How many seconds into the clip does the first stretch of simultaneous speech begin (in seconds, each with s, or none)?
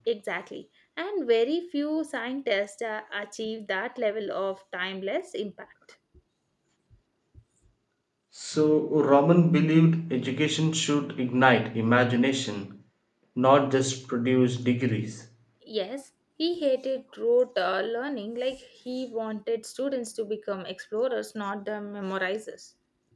none